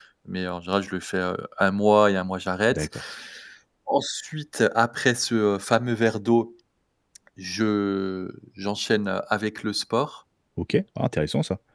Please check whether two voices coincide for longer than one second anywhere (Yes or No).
No